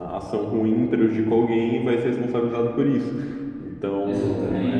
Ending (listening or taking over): taking over